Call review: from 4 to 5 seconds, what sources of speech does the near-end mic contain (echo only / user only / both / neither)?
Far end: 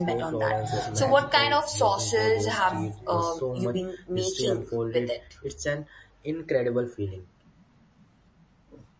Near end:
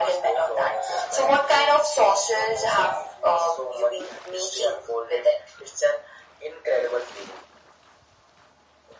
echo only